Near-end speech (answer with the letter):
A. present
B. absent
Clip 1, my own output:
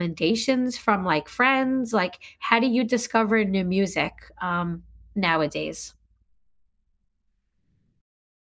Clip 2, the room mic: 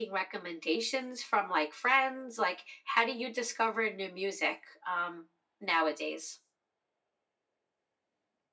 B